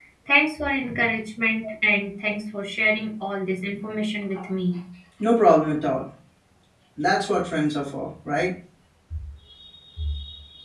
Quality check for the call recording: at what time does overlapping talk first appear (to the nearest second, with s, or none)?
none